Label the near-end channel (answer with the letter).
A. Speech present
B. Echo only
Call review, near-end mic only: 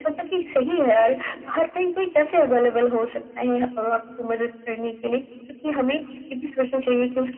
B